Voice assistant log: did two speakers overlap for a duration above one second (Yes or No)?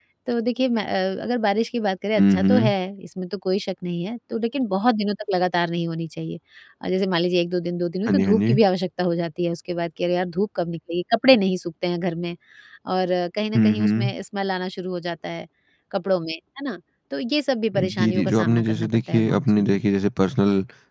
Yes